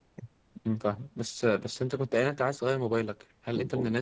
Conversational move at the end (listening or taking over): listening